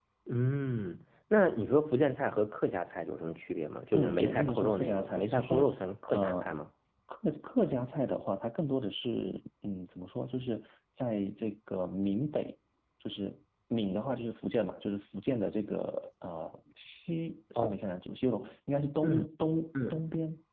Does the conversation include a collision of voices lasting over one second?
Yes, from 3.9 s

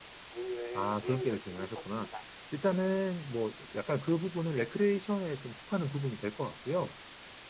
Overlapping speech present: Yes, from 0.8 s

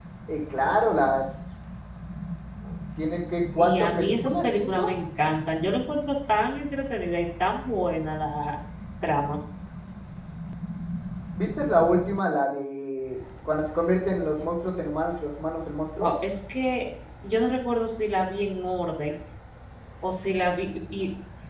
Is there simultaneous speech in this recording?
Yes, from 3.6 s

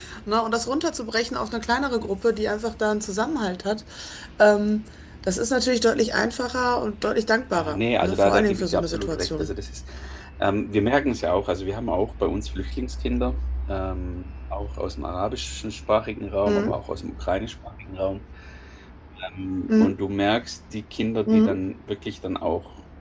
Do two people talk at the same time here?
Yes, from 7.6 s

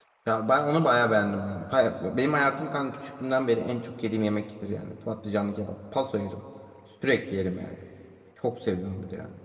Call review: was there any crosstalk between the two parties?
No

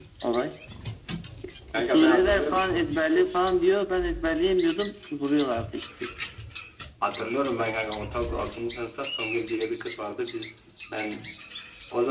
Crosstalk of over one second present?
Yes, from 1.8 s

